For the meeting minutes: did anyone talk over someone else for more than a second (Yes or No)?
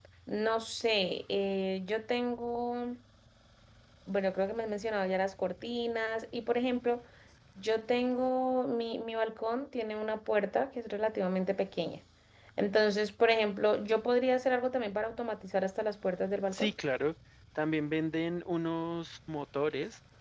No